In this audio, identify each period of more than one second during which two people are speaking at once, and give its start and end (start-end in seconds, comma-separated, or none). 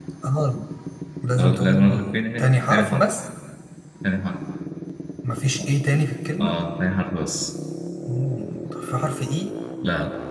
1.4-3.1